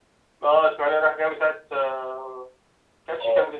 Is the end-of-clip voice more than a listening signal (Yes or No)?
Yes